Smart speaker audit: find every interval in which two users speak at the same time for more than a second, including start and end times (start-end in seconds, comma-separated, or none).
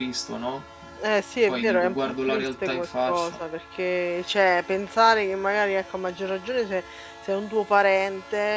1.5-3.4